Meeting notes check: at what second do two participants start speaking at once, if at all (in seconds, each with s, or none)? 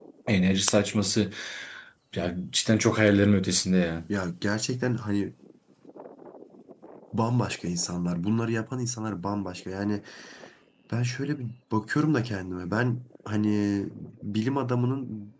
none